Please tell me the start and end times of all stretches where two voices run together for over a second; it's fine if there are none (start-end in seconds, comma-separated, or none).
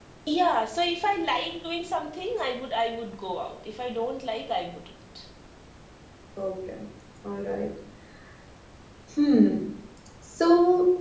none